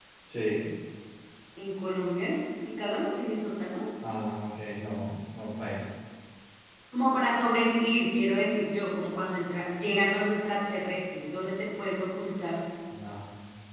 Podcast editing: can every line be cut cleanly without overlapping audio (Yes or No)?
Yes